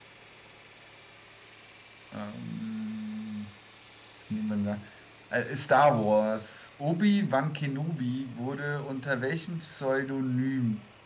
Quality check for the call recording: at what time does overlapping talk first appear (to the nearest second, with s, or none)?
none